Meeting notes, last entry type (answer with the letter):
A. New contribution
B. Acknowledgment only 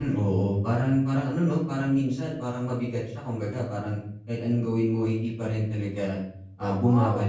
A